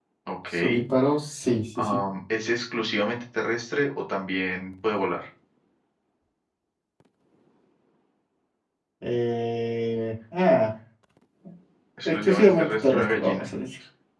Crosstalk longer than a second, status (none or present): present